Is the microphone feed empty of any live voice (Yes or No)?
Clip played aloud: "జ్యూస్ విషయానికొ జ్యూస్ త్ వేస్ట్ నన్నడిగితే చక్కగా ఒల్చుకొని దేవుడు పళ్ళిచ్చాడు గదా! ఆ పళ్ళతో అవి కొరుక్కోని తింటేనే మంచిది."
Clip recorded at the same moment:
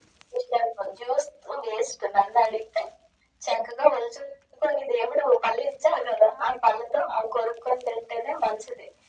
Yes